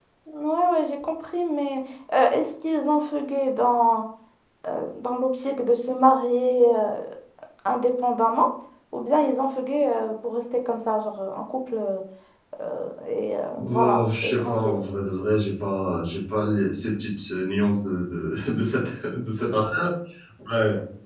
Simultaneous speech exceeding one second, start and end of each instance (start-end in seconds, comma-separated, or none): 13.5-14.8